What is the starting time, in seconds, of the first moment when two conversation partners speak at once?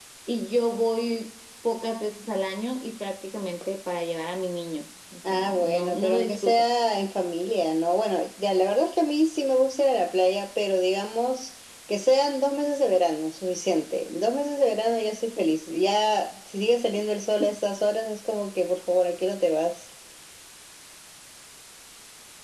5.2 s

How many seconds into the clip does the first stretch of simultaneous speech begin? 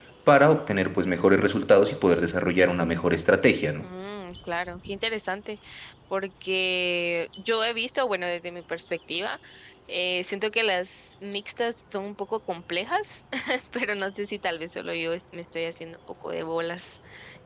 none

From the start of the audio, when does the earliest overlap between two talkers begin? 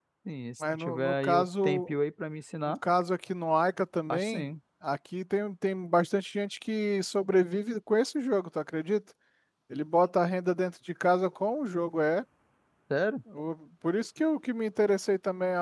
0.6 s

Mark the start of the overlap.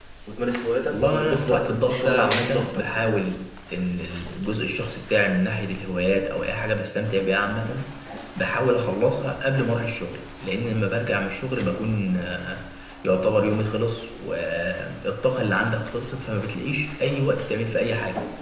0.9 s

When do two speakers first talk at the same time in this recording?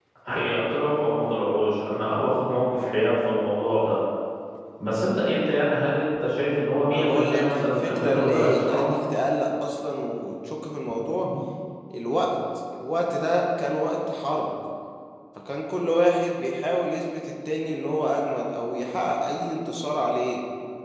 6.9 s

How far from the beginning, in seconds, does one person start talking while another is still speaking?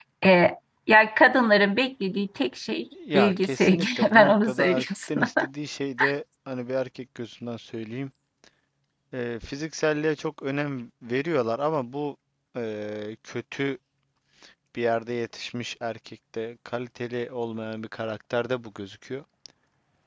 2.9 s

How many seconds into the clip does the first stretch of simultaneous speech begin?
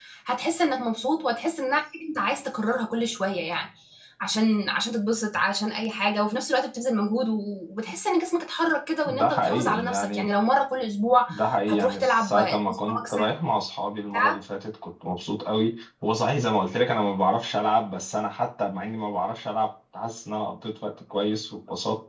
9.1 s

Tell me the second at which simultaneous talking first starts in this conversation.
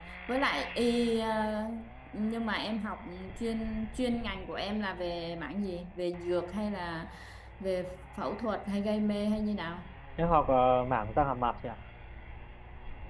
none

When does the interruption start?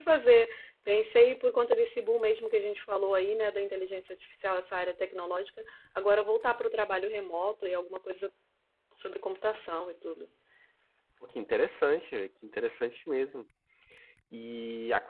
none

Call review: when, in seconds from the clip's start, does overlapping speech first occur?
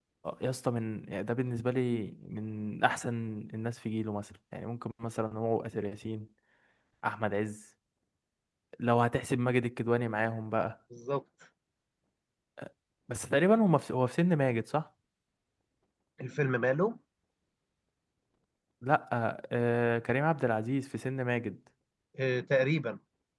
none

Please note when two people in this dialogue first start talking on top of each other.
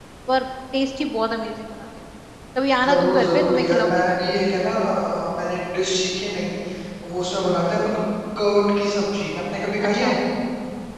2.8 s

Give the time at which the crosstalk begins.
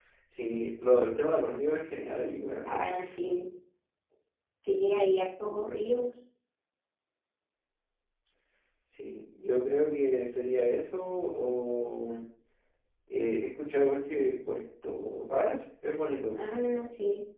none

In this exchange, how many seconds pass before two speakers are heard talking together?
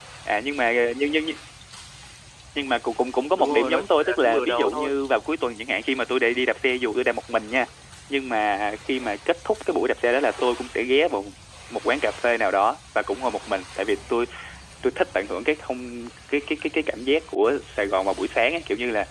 3.4 s

